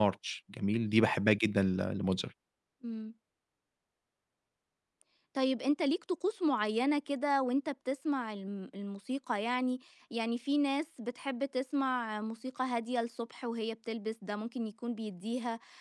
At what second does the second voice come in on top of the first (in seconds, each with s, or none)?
none